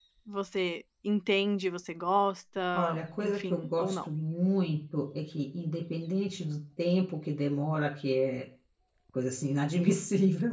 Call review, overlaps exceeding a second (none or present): present